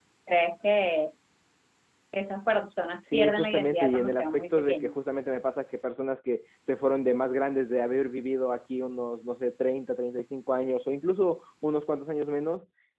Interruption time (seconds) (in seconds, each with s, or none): 3.1 s